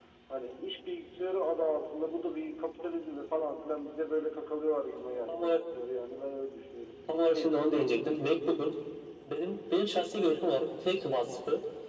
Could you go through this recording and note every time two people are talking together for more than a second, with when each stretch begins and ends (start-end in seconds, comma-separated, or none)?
7.1-8.7